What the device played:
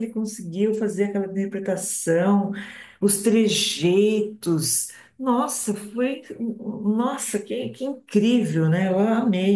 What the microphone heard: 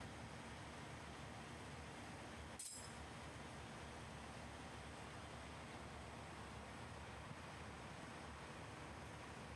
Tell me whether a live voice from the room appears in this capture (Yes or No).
No